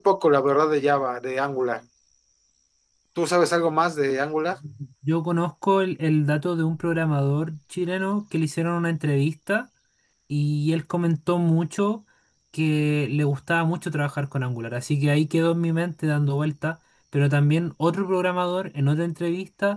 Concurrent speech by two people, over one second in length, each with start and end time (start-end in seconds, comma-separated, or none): none